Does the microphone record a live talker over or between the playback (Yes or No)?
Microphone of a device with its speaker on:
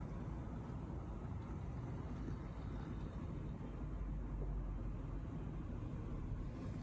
No